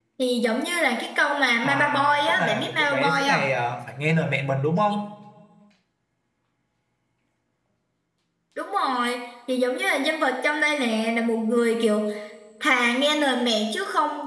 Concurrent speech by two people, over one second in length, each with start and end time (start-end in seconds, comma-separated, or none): 1.6-3.4